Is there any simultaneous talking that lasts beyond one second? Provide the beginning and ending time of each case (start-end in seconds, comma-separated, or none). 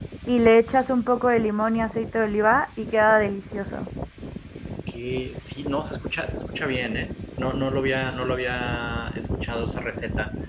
none